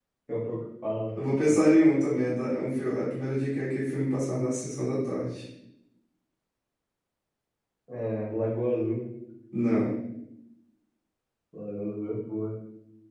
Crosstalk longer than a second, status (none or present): none